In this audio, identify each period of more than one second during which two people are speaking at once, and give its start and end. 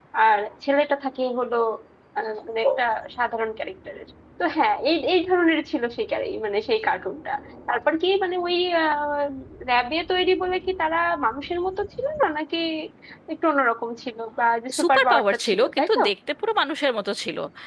14.8-16.0

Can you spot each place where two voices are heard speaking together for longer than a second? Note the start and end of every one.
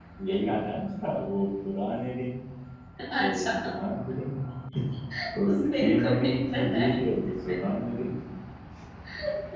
5.5-7.0

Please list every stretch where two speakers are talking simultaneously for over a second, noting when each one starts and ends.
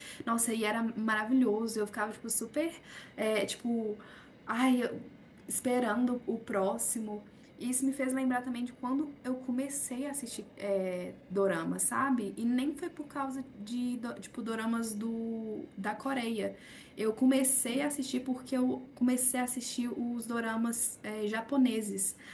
none

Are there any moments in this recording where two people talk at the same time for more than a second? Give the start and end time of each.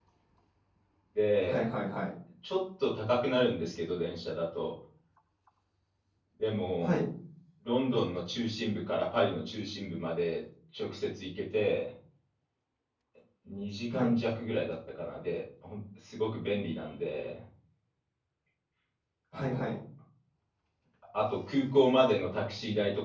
none

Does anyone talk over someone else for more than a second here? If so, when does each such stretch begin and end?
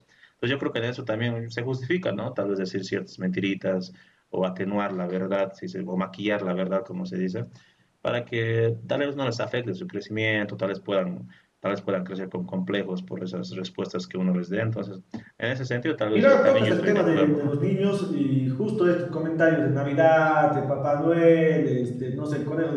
16.1-17.6

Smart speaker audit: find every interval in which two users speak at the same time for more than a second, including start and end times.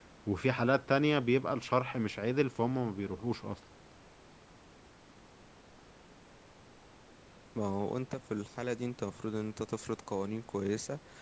none

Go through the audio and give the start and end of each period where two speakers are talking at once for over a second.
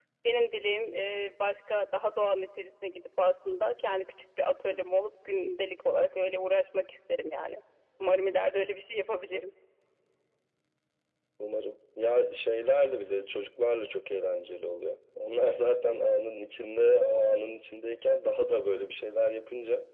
none

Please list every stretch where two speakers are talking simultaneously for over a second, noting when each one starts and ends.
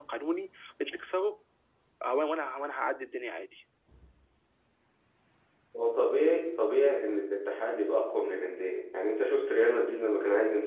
none

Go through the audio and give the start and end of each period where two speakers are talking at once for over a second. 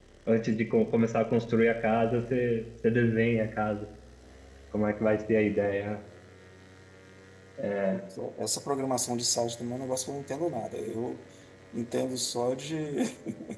none

